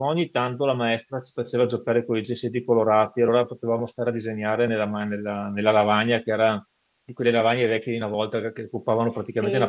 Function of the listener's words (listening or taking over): taking over